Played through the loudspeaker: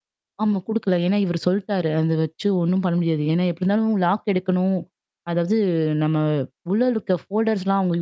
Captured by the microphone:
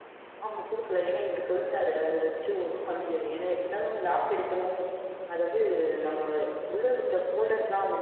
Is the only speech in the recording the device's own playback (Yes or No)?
Yes